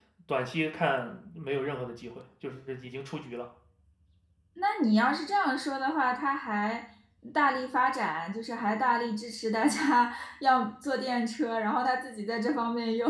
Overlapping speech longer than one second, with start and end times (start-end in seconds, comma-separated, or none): none